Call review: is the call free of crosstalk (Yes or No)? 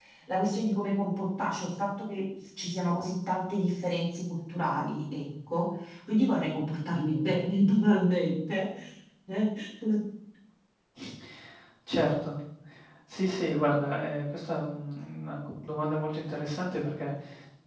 Yes